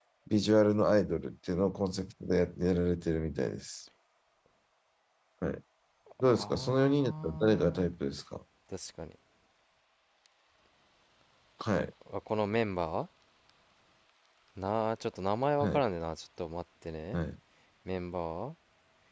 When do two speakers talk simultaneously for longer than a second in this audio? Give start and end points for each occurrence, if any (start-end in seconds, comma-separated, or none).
6.3-7.9